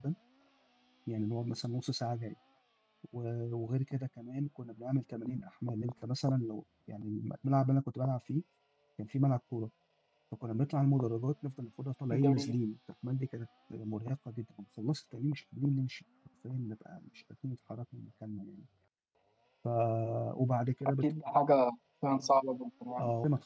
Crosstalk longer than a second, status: none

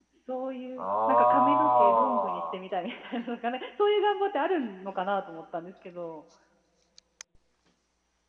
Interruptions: present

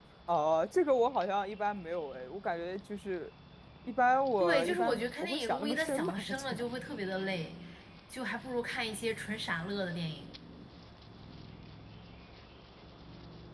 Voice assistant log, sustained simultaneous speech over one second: present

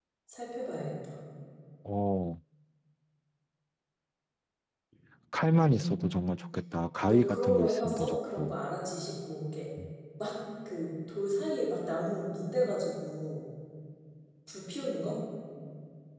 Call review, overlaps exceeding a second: present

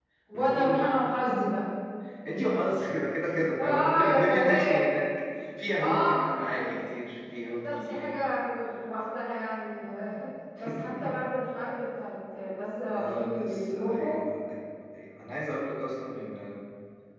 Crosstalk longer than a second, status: present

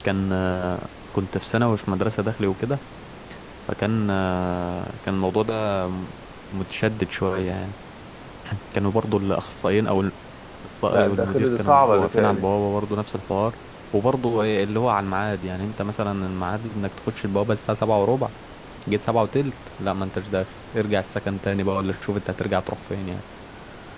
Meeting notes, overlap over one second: present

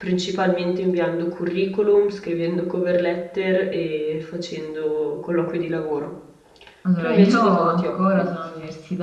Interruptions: present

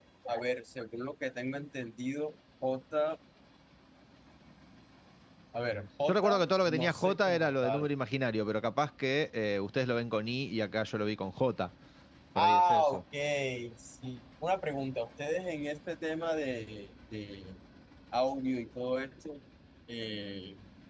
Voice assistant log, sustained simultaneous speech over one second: present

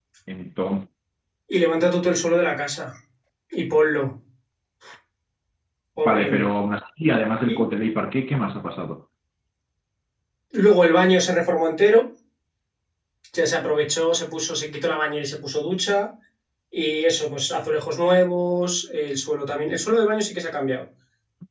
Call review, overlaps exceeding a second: none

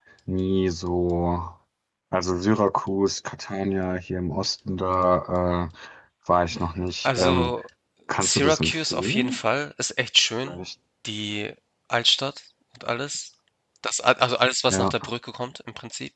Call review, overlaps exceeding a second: present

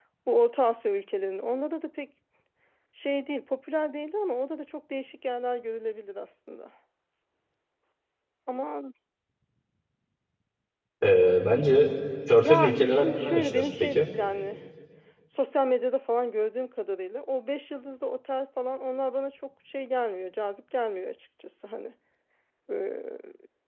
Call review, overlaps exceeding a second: present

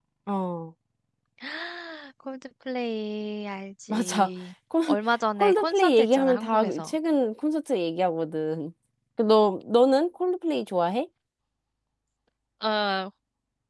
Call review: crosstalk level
present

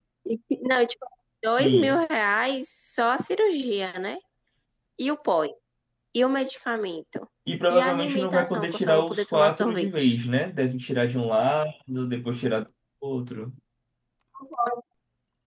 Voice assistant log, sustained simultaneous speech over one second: present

